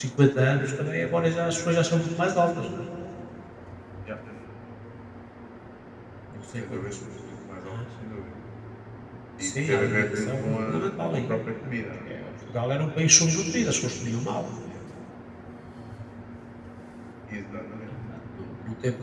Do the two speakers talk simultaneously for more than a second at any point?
Yes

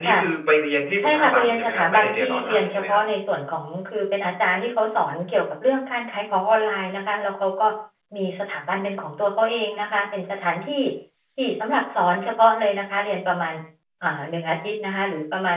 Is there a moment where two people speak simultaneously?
Yes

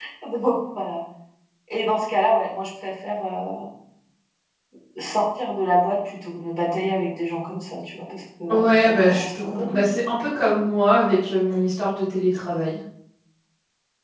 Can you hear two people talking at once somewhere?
Yes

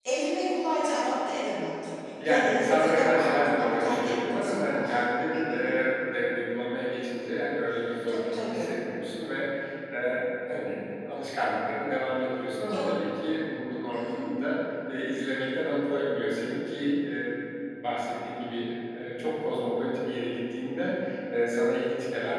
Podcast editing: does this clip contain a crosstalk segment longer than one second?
Yes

